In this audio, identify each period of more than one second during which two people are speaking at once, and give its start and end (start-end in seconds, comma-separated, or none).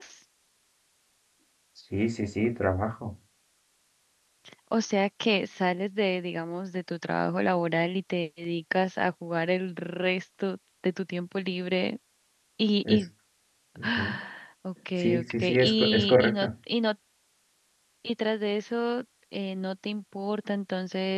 15.0-16.5